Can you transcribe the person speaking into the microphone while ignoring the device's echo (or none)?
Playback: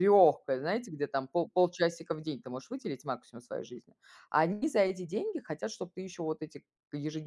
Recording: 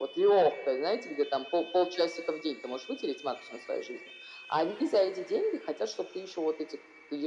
none